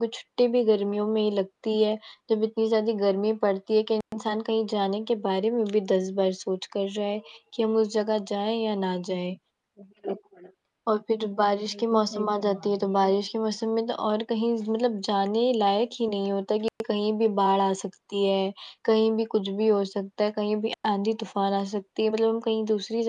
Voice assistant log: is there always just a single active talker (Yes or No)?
No